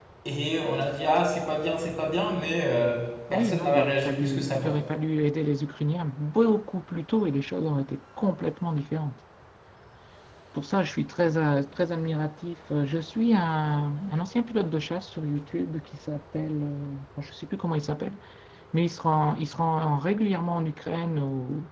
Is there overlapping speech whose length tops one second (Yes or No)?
Yes